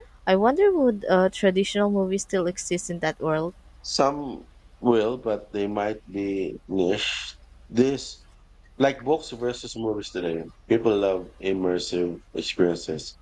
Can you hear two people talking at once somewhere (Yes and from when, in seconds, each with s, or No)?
No